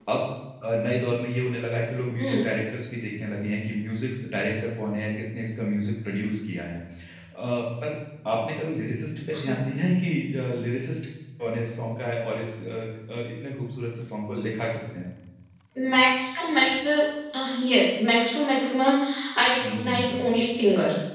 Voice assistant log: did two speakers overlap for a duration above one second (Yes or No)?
No